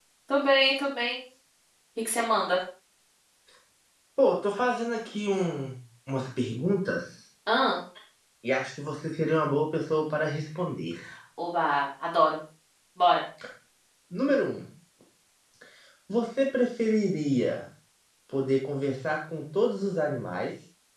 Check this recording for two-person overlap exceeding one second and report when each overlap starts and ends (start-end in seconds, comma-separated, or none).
none